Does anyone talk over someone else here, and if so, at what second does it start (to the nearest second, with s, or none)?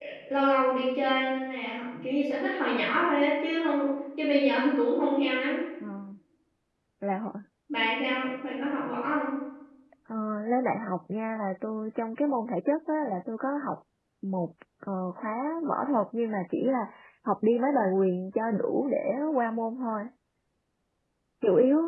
none